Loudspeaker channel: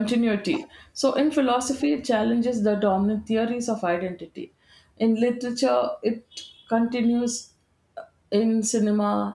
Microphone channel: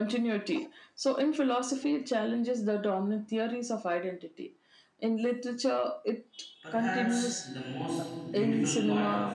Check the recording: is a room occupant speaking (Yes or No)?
Yes